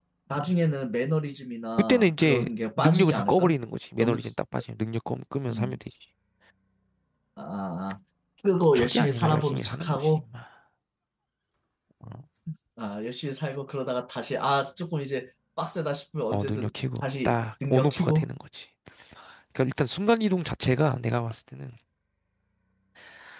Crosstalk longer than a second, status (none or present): present